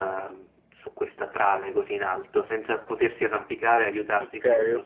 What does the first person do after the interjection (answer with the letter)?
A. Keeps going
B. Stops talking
B